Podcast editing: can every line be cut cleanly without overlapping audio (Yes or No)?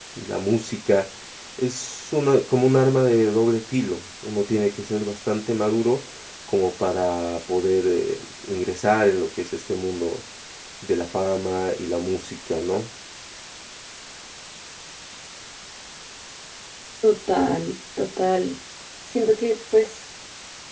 Yes